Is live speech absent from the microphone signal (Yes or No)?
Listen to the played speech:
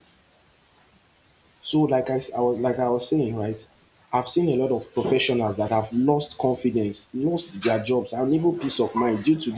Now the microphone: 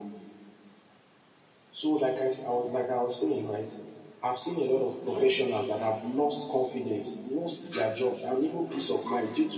Yes